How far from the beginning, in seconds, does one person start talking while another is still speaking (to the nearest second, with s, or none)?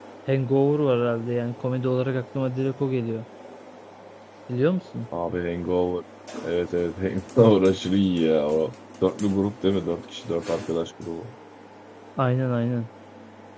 none